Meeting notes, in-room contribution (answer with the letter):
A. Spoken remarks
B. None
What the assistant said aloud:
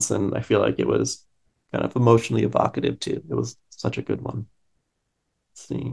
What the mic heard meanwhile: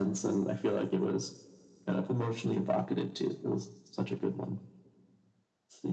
B